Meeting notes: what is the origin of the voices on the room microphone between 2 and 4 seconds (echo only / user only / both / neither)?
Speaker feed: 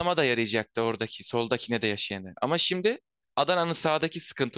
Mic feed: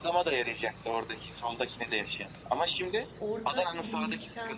both